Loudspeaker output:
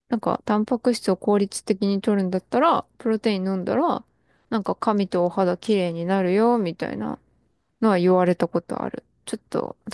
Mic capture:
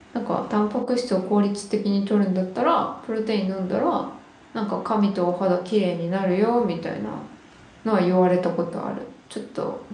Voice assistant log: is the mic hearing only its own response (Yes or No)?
Yes